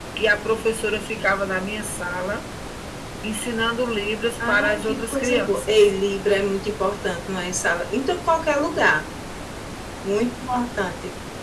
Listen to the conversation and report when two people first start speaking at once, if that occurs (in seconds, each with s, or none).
4.4 s